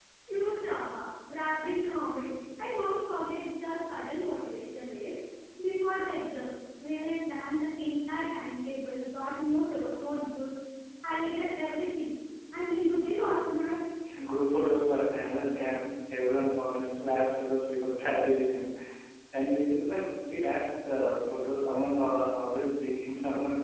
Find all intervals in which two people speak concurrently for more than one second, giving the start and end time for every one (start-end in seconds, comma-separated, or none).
none